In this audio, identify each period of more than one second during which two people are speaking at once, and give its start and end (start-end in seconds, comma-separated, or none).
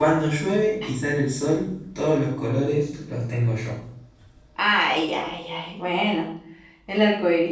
none